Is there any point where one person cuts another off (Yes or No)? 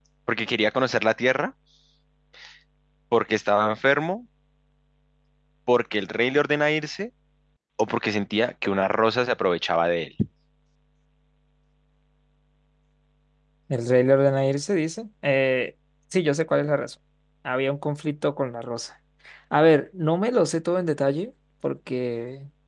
No